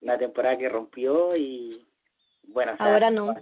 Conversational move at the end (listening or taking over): listening